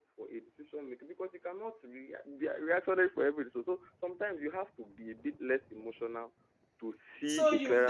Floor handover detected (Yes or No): Yes